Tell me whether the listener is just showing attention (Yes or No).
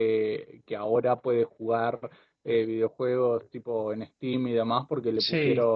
Yes